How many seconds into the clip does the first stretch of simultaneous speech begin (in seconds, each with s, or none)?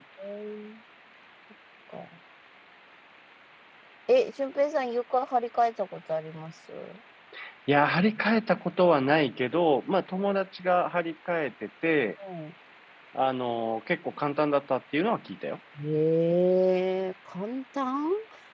none